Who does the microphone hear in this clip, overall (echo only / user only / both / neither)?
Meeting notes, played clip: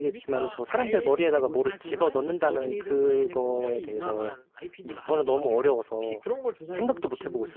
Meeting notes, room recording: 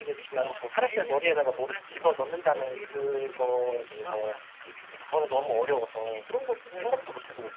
echo only